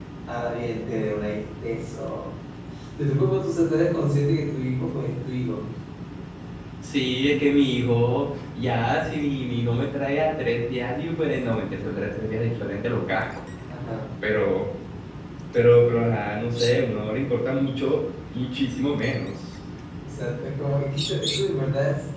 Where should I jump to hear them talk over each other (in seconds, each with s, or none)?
none